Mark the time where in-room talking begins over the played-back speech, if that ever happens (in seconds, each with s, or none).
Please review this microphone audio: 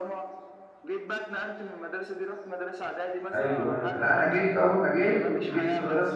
3.3 s